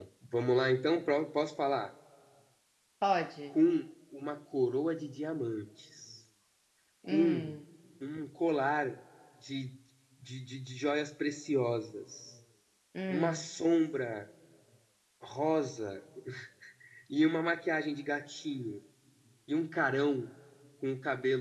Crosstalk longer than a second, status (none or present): none